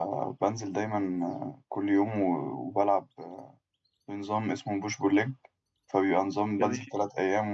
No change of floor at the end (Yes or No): Yes